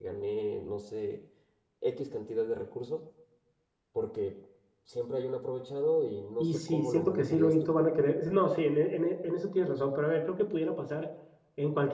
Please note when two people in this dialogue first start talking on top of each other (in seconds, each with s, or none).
6.4 s